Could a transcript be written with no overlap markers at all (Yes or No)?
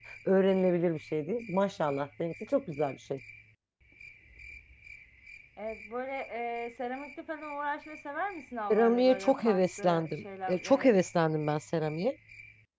No